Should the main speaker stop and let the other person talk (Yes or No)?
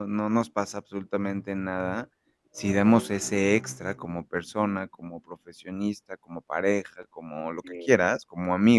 No